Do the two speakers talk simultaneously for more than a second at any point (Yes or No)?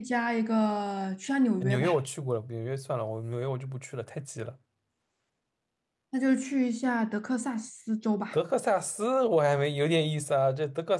No